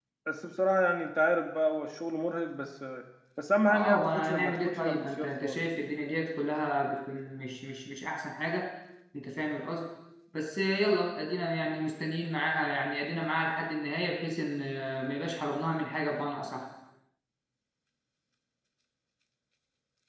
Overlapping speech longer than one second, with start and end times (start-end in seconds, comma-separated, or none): 3.6-5.8